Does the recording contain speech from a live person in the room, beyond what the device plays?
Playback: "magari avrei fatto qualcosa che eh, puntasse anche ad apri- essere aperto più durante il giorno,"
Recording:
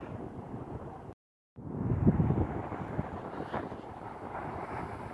No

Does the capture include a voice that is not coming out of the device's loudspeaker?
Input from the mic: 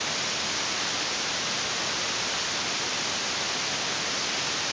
No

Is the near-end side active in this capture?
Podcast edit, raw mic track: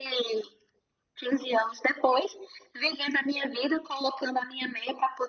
No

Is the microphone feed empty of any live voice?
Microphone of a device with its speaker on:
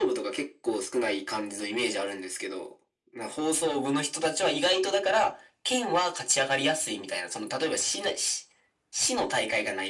Yes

